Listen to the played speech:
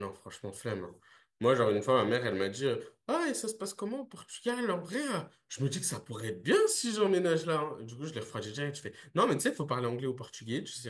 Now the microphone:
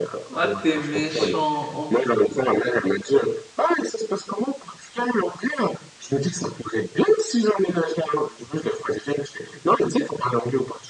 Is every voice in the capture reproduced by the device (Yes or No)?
No